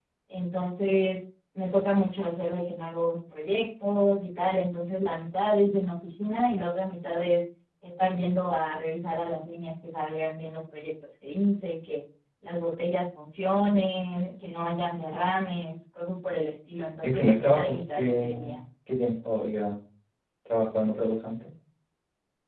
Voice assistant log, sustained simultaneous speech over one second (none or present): present